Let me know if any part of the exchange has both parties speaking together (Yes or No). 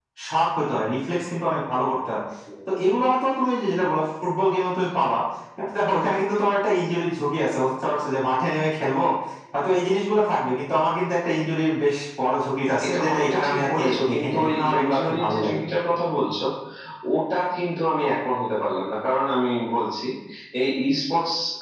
Yes